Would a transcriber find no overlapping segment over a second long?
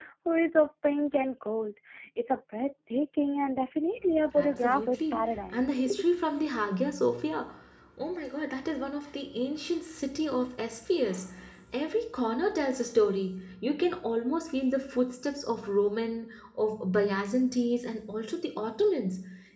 No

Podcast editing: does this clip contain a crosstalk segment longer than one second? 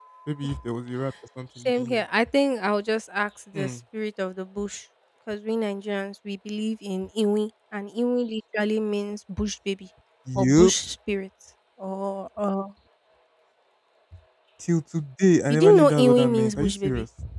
Yes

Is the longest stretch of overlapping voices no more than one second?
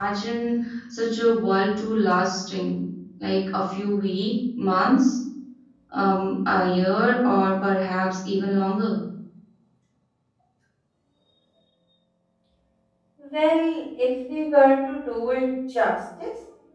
Yes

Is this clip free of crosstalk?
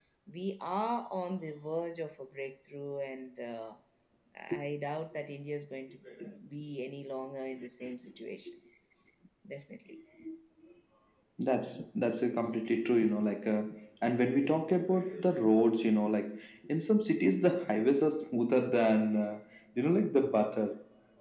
Yes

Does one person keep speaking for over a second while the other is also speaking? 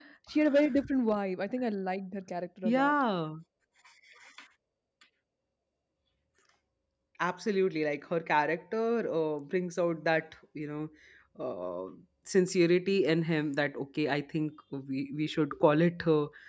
No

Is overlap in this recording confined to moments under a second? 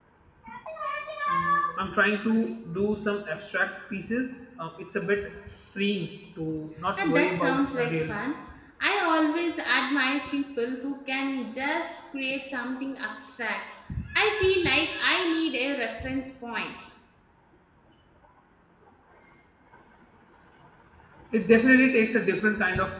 No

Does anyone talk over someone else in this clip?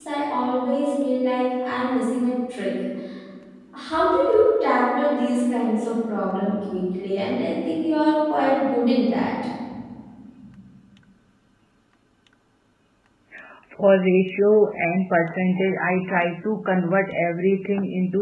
No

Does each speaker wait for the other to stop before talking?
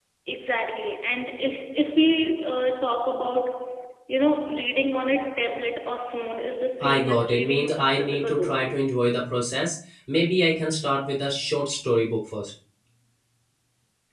No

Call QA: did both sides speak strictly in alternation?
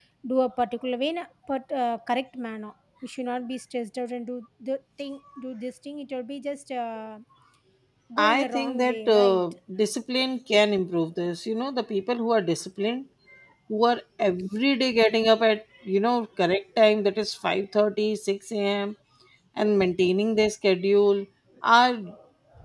No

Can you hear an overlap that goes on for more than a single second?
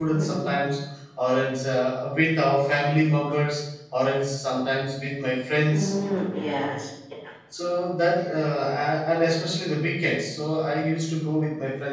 No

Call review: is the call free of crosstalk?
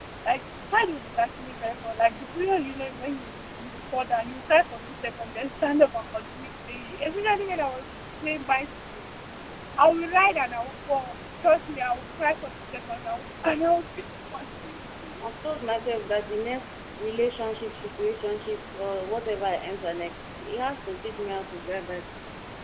Yes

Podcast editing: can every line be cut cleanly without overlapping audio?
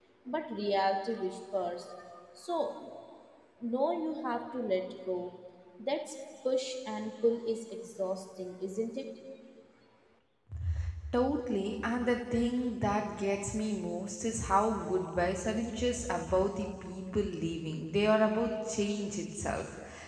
Yes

